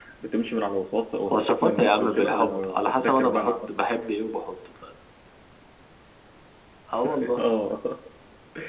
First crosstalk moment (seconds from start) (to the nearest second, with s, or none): 1 s